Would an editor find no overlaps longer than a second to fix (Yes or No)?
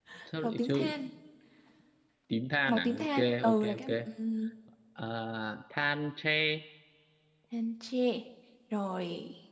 No